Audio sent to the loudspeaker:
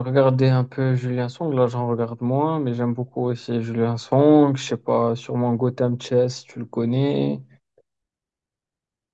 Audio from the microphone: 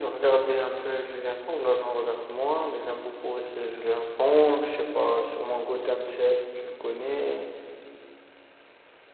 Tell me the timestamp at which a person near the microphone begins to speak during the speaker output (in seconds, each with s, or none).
none